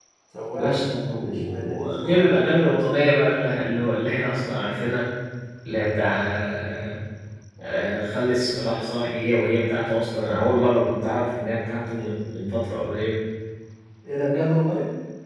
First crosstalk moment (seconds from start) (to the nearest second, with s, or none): 1 s